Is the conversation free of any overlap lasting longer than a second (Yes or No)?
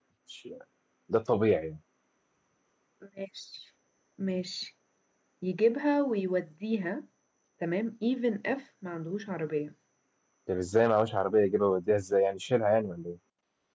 Yes